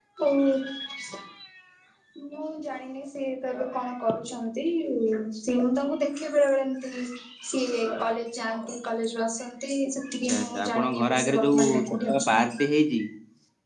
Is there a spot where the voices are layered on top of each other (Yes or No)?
Yes